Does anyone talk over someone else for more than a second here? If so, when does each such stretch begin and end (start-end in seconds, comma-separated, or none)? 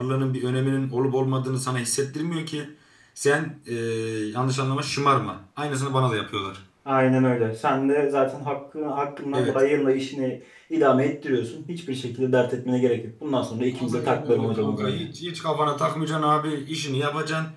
13.7-15.1